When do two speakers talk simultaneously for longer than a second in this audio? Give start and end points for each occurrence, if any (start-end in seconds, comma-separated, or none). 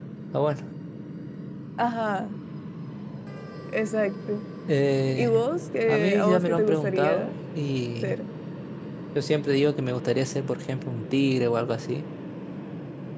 5.9-7.3